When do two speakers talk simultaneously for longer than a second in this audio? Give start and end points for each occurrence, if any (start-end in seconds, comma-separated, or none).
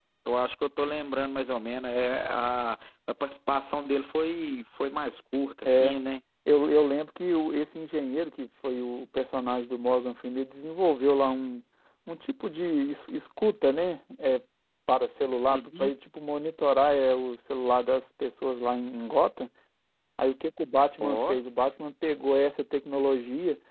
none